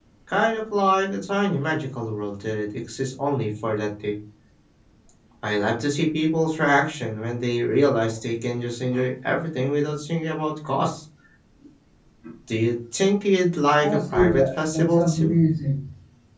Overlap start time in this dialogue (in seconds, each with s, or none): 13.8 s